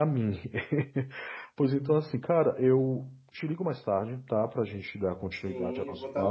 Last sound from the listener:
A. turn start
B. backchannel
A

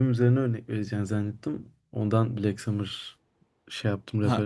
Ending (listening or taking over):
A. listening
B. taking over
B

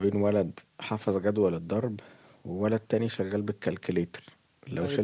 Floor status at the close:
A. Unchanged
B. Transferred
A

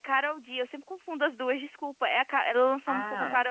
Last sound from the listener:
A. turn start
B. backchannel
B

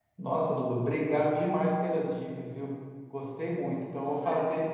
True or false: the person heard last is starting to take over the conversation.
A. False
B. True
A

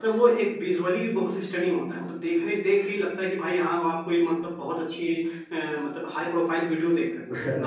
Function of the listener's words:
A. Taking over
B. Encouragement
A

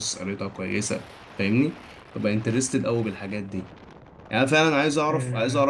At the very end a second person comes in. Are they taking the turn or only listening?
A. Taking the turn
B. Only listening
B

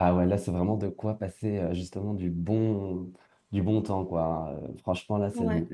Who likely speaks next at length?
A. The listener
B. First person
B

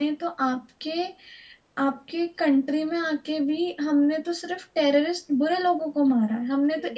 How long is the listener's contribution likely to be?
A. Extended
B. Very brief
B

